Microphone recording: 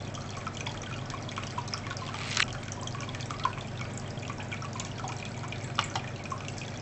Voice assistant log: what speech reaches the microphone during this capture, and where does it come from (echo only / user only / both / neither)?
neither